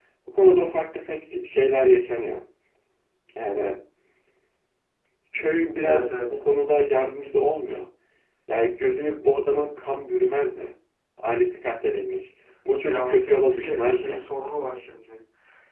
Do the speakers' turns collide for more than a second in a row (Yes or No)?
Yes